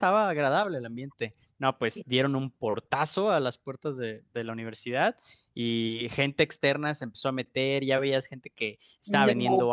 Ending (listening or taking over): listening